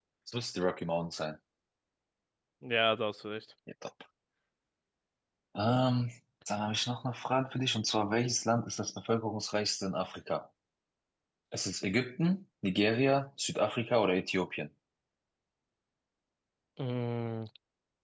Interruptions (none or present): none